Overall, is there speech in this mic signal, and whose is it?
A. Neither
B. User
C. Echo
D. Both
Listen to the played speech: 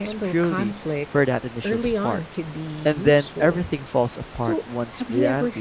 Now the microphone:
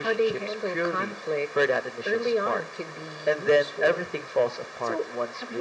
C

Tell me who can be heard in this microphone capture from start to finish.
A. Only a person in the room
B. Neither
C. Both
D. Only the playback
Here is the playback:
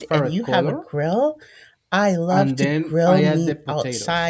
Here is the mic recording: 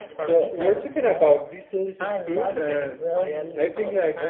C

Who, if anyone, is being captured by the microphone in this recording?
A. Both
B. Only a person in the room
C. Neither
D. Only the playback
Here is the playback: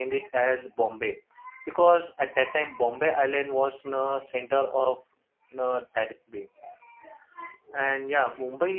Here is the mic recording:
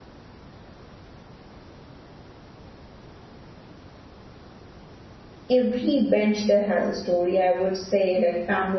B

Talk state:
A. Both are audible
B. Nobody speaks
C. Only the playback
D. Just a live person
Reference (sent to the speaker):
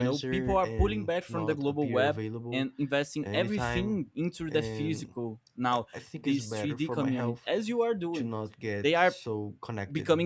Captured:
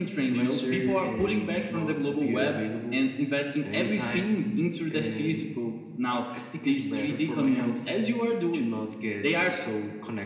C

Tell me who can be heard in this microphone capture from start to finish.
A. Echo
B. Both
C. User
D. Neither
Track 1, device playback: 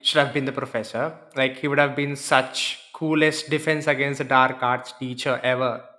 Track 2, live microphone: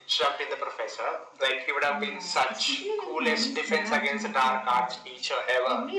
B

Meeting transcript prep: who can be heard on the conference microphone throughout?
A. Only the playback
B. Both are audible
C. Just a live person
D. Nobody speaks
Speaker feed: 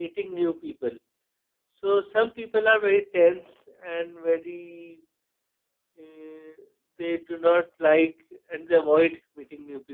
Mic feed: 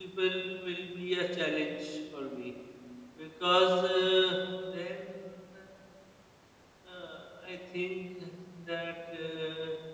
C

